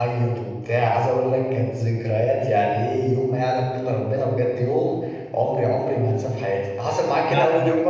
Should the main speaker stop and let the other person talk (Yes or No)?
Yes